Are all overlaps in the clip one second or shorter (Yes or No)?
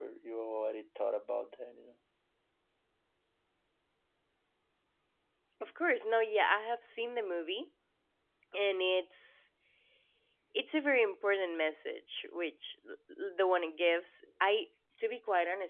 Yes